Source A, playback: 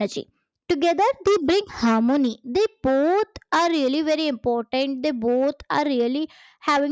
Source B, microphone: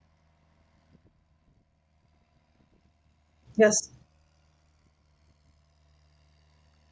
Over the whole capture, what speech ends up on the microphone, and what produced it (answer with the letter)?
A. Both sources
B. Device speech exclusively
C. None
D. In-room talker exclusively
D